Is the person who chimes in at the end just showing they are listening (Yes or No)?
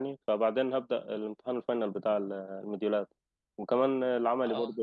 Yes